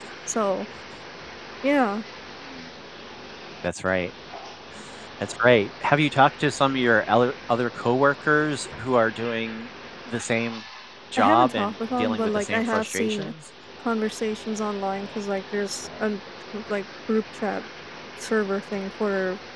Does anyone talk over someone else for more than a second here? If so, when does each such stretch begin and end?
11.2-13.3

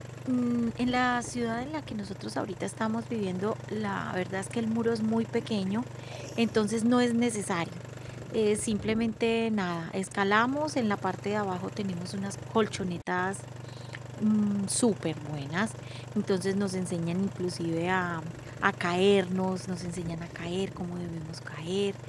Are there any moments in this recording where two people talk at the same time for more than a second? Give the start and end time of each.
none

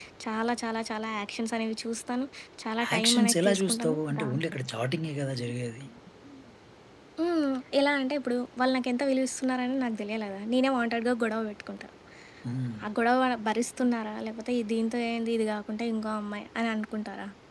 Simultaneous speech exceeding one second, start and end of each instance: 2.9-4.5

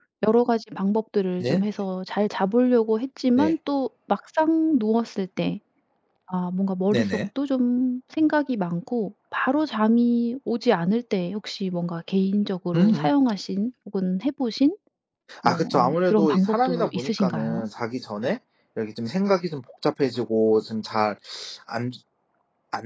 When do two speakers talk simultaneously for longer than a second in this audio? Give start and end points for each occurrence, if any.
15.4-17.6

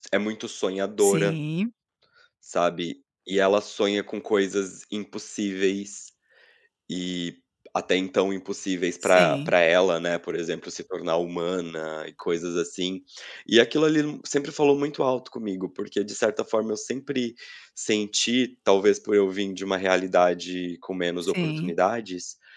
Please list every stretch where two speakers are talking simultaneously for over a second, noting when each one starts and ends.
none

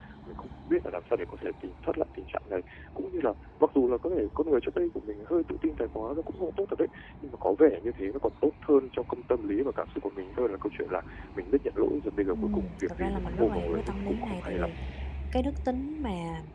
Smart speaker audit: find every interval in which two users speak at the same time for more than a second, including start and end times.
12.3-14.7

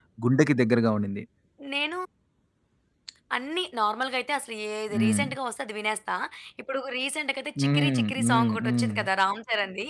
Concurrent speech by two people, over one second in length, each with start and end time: 7.6-8.9

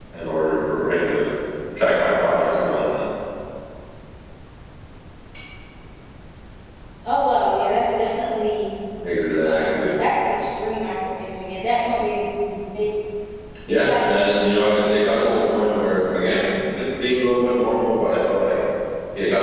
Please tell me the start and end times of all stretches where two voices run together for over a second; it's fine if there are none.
13.7-16.1

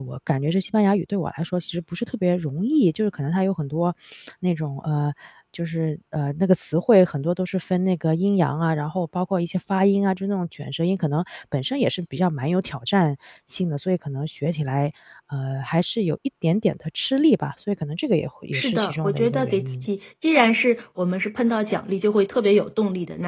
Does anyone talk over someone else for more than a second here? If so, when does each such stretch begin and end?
18.5-19.9

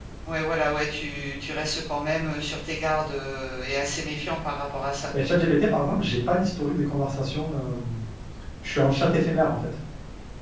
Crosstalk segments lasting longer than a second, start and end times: none

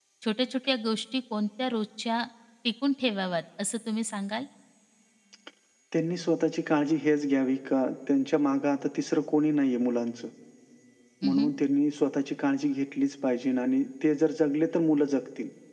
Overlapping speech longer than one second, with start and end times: none

